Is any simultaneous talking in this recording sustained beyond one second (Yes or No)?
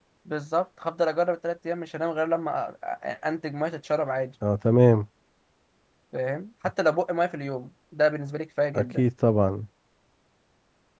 No